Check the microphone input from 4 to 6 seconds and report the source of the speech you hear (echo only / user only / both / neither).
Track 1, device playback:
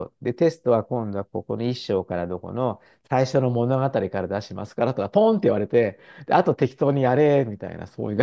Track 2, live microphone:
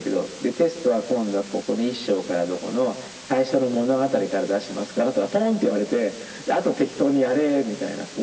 echo only